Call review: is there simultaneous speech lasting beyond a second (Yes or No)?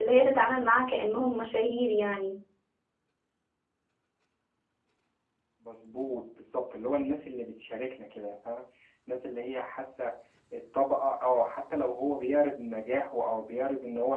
No